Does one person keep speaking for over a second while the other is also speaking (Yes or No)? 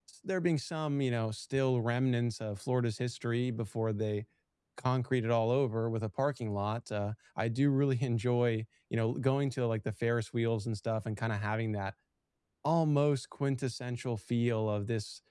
No